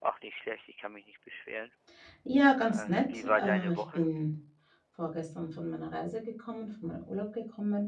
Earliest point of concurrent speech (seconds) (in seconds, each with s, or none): 2.7 s